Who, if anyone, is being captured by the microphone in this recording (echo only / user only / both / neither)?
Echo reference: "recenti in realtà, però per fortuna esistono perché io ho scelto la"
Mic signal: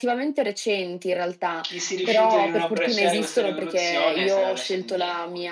both